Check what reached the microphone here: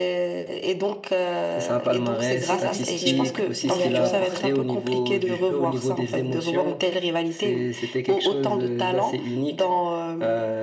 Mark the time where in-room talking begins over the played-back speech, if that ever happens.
2.3 s

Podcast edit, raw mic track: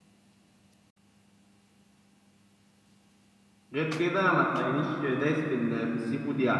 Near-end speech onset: 3.7 s

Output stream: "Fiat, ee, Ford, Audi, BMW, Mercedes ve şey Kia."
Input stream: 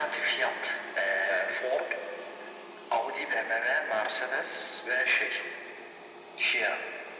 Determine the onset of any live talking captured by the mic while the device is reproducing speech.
none

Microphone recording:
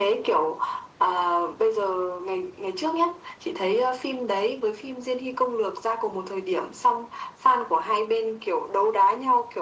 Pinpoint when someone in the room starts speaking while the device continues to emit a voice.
none

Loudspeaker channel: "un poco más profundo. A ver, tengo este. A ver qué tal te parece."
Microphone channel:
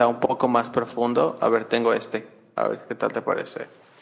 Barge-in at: none

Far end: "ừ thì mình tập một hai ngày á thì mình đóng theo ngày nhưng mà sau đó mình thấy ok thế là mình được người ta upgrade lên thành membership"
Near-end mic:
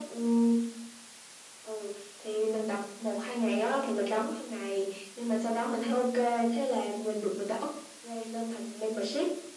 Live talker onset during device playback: none

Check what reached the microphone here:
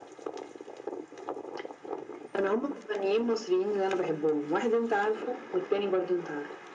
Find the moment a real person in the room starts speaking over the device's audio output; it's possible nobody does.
none

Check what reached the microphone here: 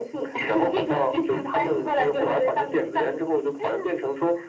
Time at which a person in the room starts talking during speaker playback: none

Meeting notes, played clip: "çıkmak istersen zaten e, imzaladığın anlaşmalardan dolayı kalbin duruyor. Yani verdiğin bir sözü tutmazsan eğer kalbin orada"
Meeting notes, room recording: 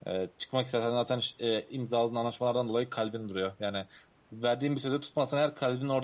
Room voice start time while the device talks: none

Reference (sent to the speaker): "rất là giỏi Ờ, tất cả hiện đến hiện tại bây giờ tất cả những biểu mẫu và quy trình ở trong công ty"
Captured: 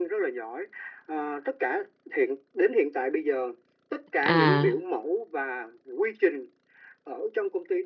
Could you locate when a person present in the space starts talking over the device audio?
4.2 s

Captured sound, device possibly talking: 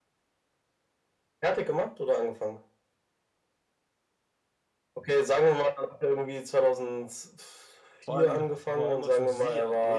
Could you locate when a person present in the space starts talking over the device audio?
8.0 s

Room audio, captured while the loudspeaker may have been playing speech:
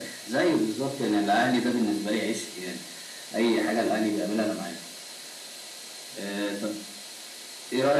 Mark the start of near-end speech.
none

